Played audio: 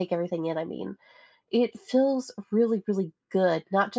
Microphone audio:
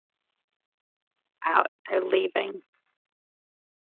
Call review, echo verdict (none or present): none